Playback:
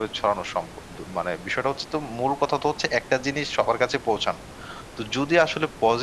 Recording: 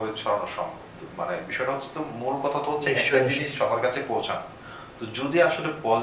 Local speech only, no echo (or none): নিশ্চয়ই, নিশ্চয়ই।